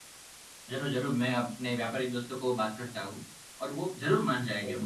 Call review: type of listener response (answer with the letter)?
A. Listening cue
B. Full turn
A